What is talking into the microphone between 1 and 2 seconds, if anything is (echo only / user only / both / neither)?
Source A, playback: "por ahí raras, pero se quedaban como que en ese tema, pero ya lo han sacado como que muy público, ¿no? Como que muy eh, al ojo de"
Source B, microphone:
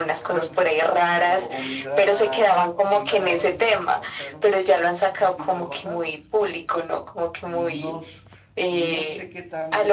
both